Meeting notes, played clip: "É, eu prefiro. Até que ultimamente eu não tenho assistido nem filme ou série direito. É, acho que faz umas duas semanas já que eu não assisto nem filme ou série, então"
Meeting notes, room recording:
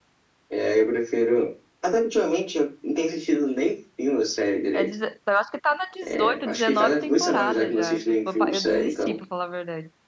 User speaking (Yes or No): Yes